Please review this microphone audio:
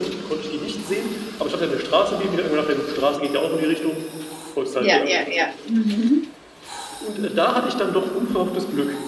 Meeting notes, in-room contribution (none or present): present